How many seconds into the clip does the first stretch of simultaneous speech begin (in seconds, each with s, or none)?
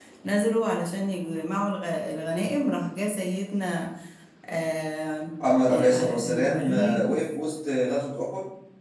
5.7 s